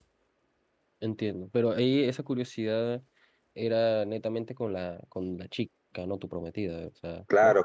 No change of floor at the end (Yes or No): No